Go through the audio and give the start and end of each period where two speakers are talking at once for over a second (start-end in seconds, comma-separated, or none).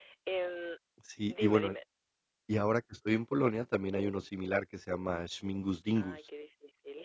none